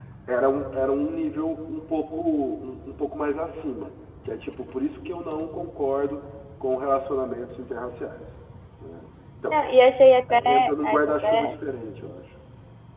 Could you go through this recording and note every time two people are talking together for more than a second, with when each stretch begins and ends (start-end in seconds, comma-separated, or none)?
10.3-11.5